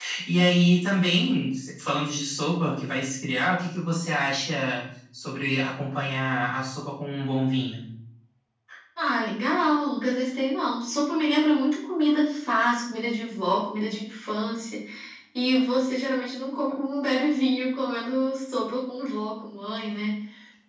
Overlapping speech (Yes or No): No